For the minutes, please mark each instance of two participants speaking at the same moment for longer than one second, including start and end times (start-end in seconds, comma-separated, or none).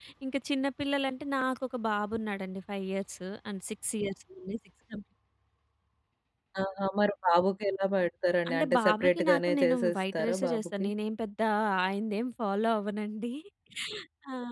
8.5-10.9